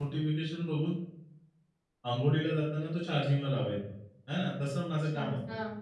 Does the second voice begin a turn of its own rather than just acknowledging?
No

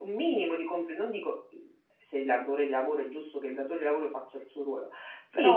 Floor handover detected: Yes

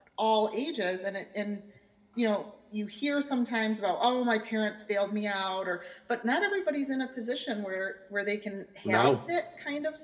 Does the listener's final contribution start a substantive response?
No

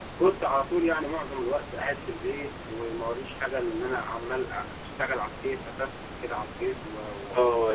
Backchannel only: No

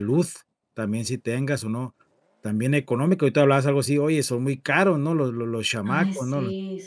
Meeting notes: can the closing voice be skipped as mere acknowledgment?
No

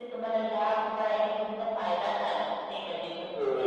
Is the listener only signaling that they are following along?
No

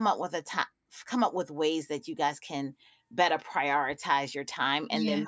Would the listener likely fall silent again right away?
Yes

